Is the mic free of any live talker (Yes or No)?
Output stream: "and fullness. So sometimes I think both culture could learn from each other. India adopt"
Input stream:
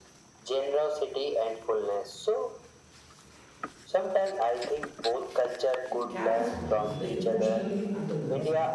No